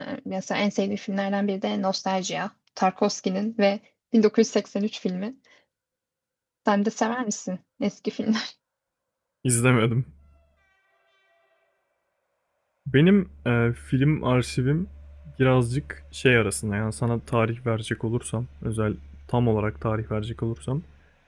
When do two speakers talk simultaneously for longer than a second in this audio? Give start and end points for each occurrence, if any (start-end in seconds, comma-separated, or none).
none